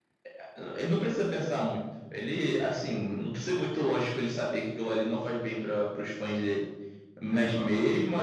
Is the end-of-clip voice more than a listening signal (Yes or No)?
No